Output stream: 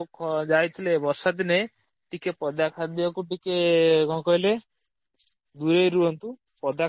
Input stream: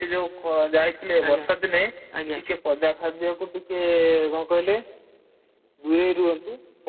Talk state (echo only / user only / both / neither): both